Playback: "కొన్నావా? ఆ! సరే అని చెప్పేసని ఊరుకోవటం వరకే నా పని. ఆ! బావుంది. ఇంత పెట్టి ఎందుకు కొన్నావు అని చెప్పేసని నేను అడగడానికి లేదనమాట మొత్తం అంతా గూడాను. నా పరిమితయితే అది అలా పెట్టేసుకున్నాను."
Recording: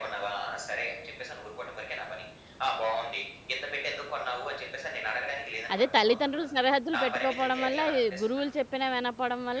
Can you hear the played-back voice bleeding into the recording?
Yes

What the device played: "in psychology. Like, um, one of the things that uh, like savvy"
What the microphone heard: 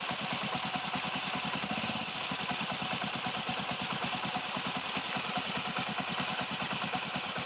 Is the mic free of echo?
Yes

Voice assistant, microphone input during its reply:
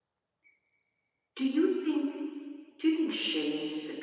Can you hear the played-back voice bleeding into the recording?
Yes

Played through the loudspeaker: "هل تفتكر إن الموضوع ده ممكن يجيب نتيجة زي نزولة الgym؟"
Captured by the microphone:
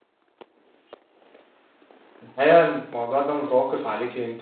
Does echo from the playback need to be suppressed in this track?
No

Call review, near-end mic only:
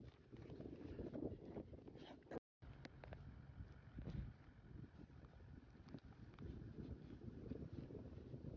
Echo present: No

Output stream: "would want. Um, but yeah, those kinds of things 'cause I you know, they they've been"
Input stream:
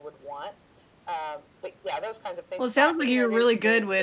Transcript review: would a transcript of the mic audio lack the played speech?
No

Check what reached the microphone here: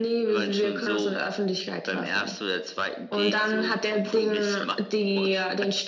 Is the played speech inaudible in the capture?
No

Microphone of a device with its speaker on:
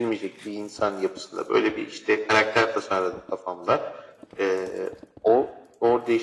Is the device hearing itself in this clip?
Yes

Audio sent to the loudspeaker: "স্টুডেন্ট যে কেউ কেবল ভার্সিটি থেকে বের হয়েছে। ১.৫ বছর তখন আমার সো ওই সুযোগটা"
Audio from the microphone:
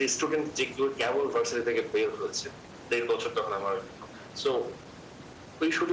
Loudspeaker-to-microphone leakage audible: Yes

